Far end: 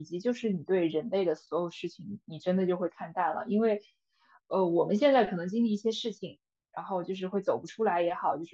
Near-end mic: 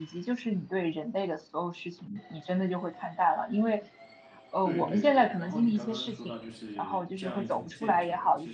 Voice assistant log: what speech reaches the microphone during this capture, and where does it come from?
both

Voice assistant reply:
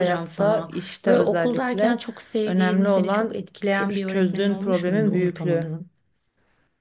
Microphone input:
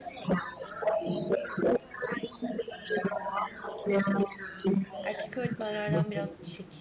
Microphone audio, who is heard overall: both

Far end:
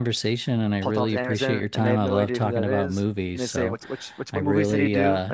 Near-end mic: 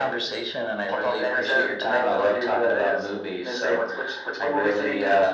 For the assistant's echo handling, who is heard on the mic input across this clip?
echo only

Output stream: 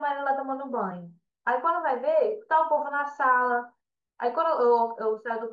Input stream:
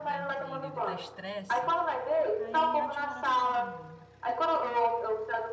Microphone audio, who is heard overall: both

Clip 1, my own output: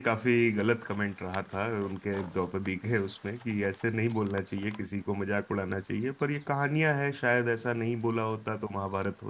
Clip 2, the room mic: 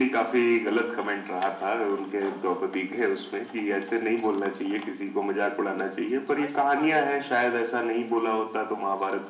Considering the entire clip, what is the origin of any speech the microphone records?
both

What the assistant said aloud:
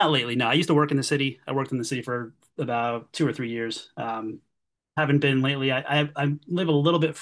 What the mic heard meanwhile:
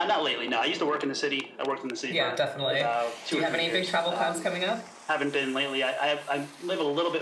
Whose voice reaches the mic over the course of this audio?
both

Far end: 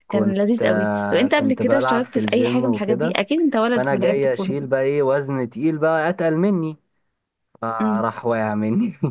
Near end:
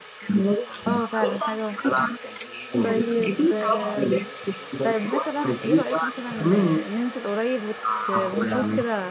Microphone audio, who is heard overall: both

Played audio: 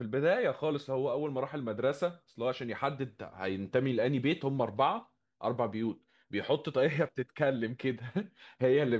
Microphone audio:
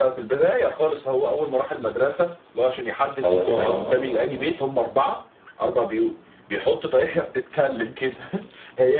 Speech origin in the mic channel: both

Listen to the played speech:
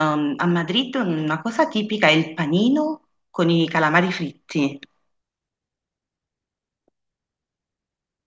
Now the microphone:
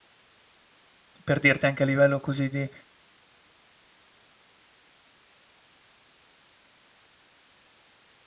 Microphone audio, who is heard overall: user only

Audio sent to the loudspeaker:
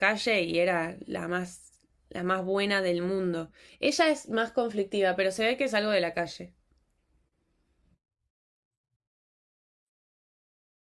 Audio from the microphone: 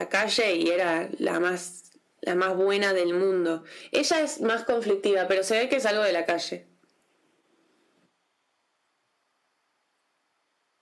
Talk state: echo only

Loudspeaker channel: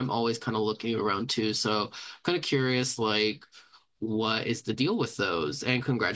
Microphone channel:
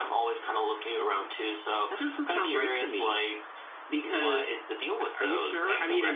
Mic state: both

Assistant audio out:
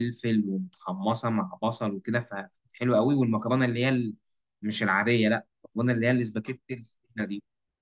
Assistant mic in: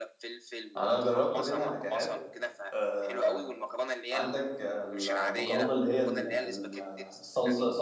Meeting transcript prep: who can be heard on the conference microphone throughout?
both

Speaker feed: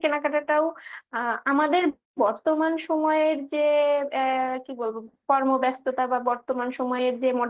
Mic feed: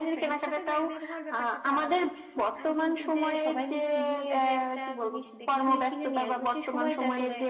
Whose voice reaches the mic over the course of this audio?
both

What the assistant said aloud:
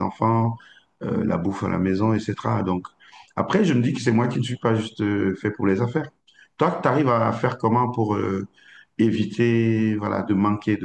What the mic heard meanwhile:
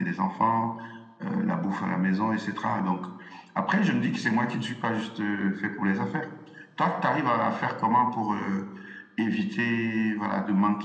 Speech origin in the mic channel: echo only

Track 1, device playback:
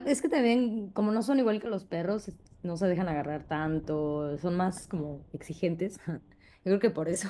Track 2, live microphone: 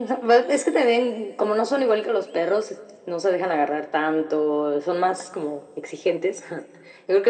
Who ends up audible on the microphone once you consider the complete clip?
echo only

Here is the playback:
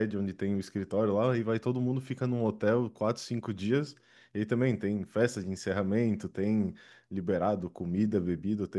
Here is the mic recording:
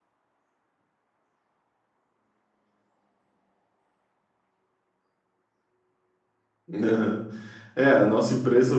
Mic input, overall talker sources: user only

